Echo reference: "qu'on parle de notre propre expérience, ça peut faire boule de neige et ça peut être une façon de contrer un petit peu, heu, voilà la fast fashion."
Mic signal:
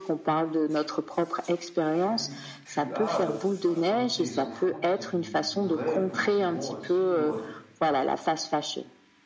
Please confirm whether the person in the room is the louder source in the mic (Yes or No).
No